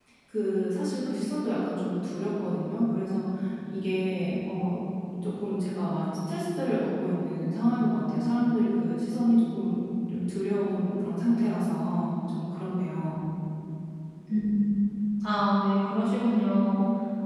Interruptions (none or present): none